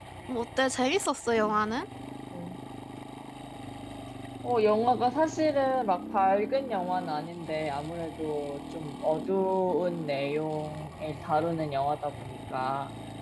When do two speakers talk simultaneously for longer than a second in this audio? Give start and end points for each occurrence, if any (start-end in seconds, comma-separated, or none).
none